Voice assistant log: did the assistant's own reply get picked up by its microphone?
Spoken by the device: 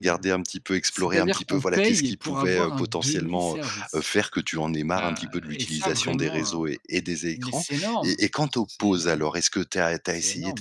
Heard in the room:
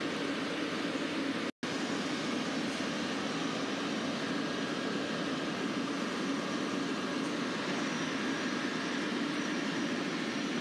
No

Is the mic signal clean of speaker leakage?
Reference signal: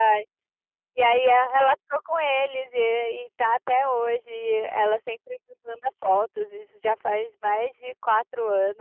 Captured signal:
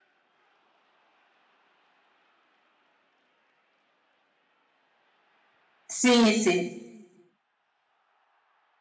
Yes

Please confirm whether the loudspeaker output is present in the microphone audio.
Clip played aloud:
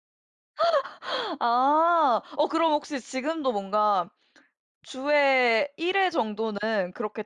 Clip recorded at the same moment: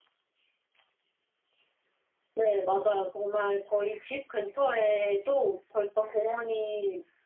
No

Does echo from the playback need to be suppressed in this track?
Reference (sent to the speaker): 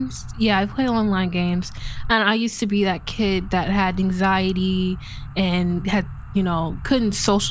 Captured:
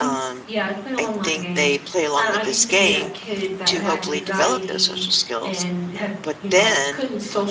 Yes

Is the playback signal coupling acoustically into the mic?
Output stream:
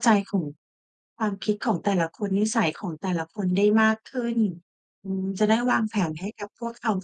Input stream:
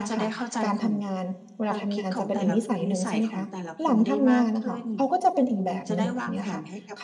Yes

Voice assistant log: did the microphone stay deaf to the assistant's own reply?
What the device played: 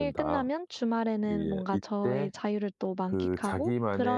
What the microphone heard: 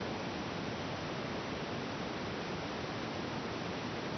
Yes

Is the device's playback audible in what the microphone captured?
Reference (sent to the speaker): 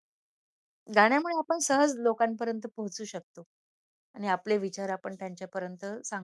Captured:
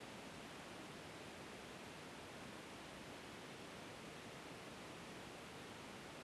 No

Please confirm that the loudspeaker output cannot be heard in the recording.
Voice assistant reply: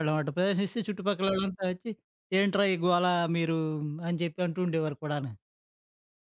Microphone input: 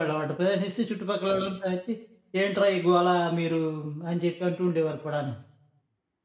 No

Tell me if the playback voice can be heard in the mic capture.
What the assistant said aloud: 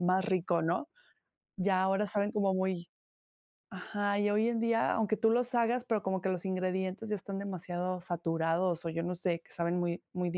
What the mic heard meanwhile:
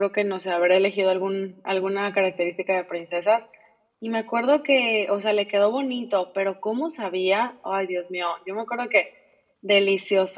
No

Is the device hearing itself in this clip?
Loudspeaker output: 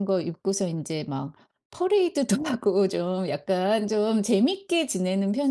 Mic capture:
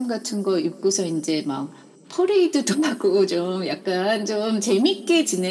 Yes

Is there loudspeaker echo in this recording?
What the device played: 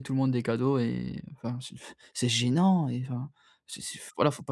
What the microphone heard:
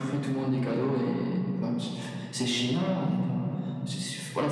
Yes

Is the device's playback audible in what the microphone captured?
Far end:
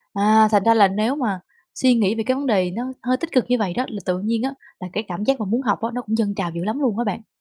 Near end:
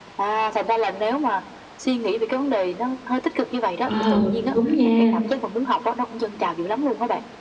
Yes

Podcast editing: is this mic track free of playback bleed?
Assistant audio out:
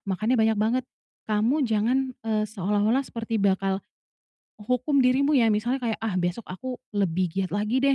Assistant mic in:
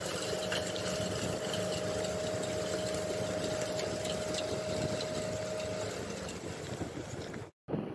Yes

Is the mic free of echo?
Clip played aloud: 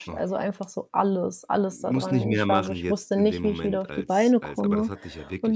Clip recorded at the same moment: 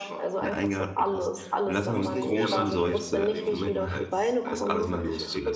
No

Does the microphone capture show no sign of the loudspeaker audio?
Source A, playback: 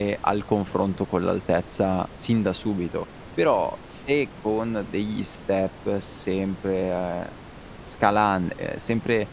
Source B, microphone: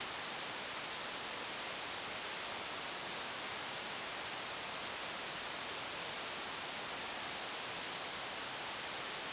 Yes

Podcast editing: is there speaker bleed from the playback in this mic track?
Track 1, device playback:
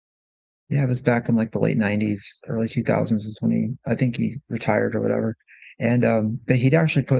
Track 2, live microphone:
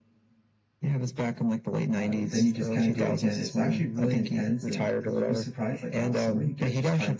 Yes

